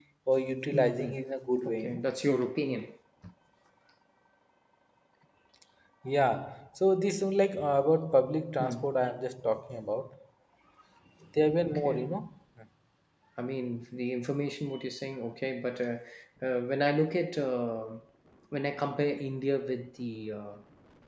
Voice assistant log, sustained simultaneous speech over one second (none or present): none